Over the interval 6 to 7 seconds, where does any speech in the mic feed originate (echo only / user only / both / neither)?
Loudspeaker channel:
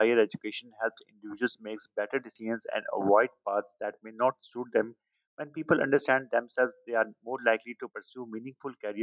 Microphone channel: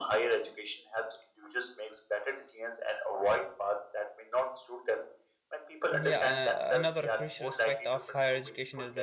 both